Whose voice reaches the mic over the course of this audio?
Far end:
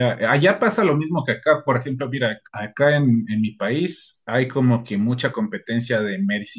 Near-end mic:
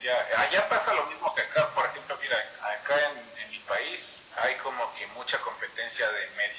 echo only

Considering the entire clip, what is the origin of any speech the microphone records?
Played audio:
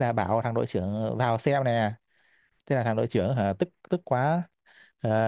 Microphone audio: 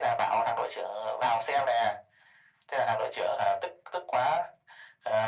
echo only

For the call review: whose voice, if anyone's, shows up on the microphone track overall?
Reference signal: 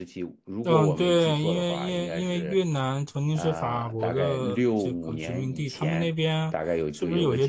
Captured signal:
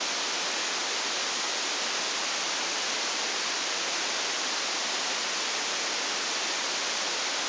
neither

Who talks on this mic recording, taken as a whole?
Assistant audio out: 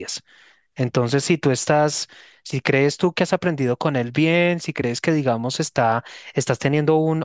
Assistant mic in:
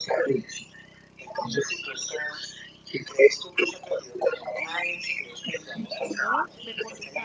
both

